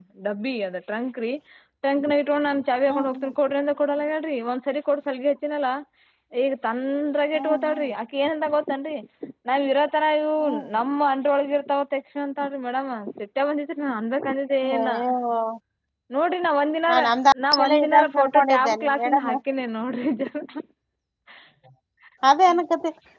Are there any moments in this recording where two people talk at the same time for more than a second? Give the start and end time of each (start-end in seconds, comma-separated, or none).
17.5-19.3